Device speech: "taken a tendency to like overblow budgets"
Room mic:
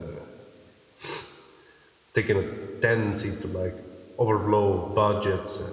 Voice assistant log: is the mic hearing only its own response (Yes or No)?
Yes